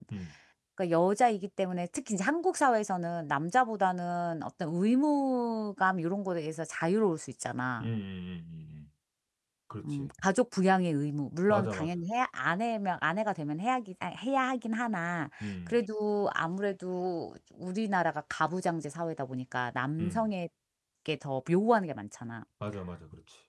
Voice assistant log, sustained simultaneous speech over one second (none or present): none